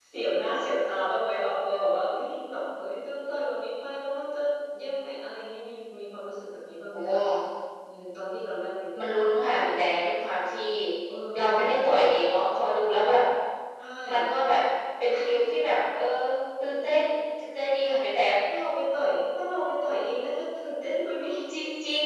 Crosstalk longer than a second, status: none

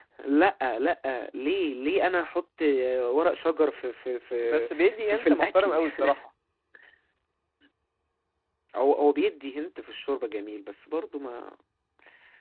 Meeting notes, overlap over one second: present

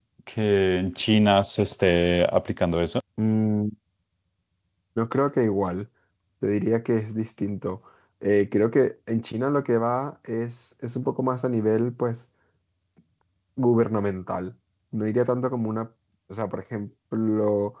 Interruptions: none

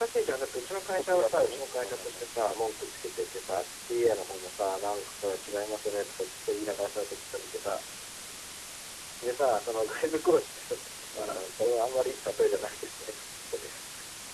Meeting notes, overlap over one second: present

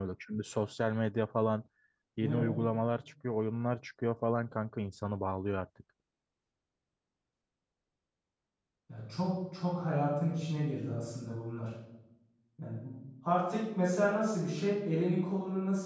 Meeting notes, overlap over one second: none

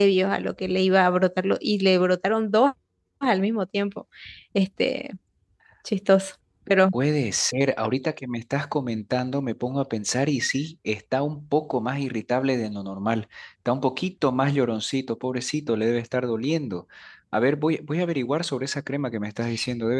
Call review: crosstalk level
none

